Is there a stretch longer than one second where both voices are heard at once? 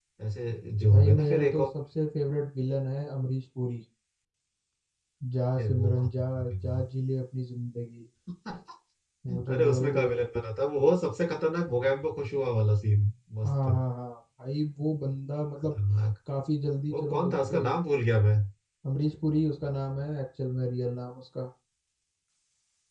Yes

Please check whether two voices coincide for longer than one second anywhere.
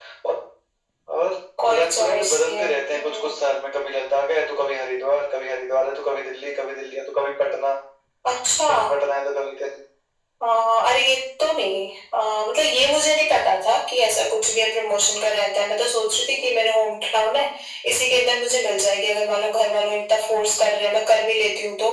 Yes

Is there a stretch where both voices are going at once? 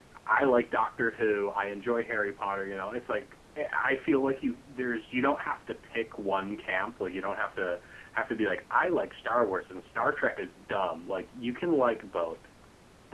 No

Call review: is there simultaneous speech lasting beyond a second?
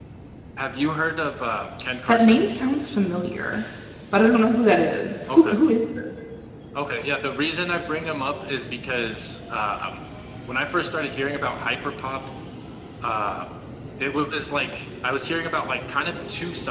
No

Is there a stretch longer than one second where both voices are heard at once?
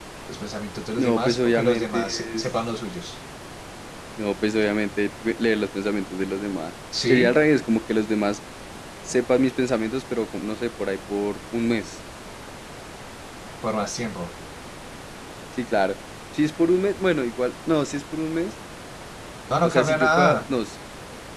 Yes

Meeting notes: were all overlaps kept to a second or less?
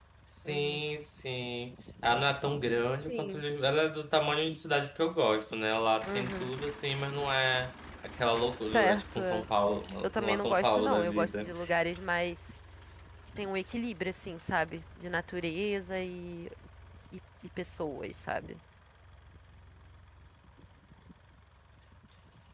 No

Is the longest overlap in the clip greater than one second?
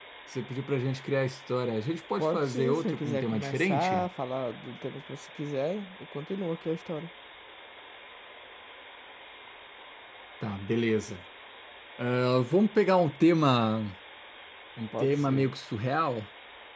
Yes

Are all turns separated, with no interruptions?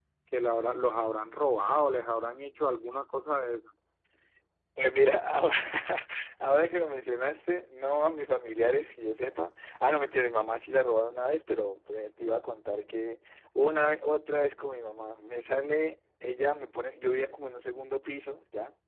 Yes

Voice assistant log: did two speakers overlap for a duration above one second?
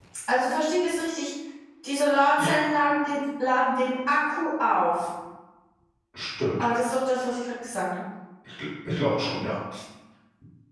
No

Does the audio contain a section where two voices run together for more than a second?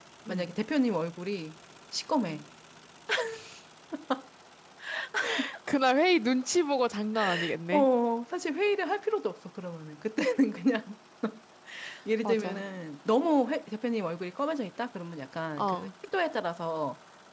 No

